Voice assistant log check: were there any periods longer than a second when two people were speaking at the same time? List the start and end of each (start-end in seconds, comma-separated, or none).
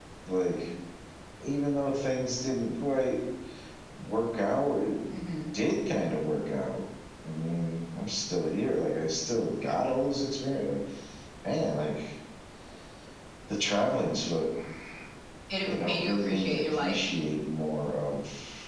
15.7-17.0